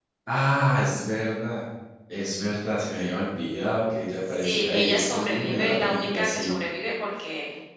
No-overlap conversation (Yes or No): No